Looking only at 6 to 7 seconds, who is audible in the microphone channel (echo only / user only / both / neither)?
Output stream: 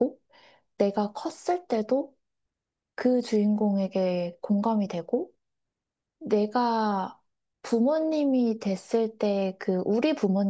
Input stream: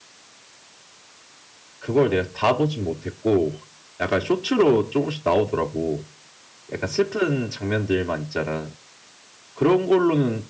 user only